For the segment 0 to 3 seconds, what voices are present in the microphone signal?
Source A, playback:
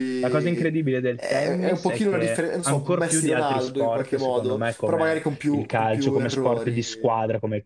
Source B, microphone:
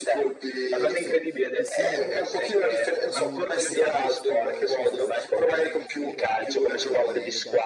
both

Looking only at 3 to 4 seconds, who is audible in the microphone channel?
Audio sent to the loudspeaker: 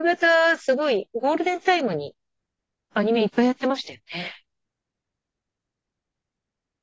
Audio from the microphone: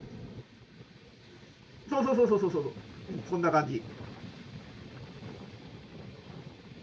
user only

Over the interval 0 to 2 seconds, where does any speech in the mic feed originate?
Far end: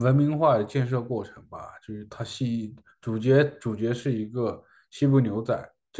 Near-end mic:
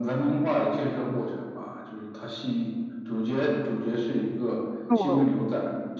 echo only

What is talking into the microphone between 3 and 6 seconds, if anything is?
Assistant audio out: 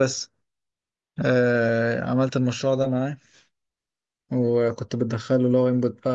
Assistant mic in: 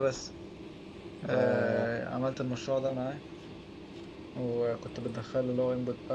echo only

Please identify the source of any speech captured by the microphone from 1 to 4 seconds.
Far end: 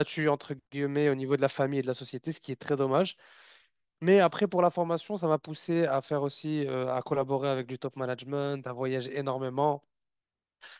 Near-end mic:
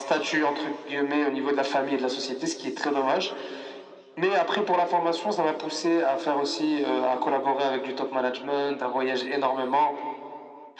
echo only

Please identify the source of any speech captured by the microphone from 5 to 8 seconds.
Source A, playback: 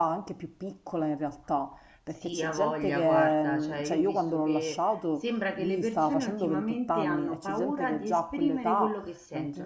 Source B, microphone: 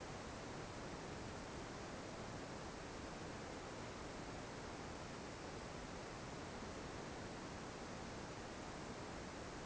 neither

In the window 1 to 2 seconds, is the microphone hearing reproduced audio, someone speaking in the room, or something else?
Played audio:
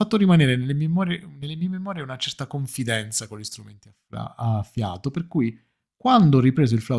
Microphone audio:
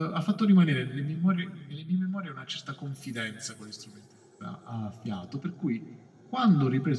echo only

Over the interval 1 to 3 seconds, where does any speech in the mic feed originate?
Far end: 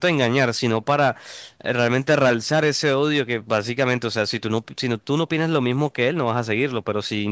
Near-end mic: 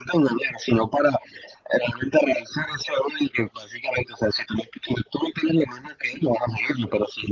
echo only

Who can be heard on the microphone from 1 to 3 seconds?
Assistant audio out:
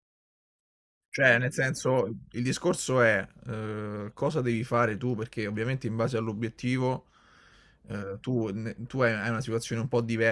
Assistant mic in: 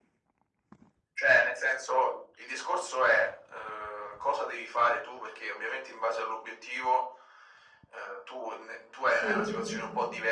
echo only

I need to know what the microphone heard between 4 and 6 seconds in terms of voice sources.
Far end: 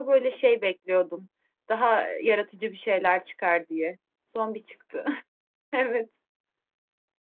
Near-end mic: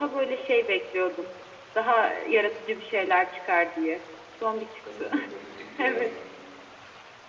both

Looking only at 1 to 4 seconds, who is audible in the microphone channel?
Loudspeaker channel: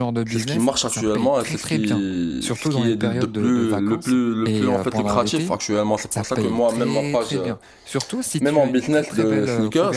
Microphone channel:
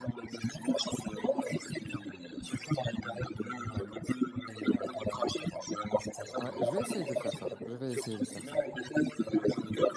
echo only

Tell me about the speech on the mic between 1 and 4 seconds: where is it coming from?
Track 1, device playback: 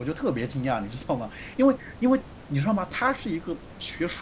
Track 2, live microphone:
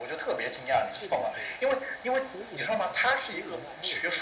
both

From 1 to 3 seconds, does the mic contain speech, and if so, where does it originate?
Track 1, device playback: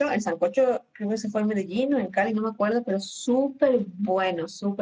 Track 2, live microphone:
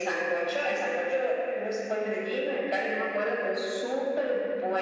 echo only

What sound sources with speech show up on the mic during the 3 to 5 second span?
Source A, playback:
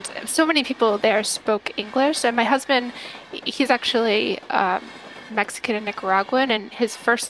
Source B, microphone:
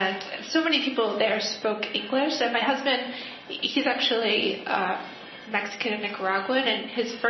echo only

